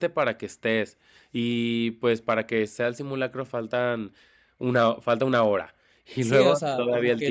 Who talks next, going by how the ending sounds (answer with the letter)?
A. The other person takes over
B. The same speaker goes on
A